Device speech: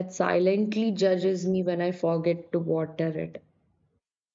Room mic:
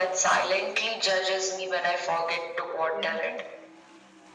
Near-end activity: present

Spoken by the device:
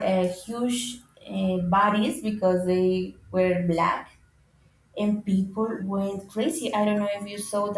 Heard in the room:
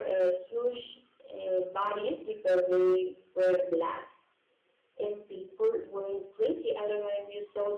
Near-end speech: none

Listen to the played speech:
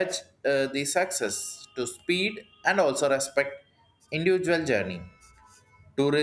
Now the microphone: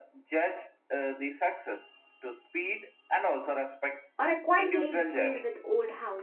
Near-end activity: present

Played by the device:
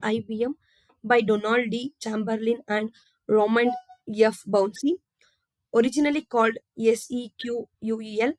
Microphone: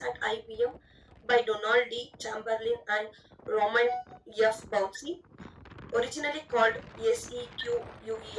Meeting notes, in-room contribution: none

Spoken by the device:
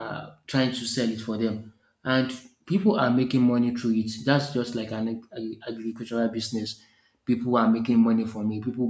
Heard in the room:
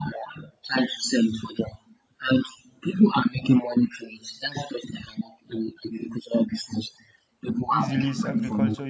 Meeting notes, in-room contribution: present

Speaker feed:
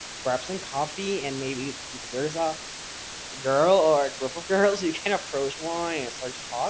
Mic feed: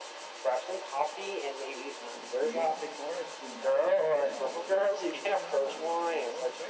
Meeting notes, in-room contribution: present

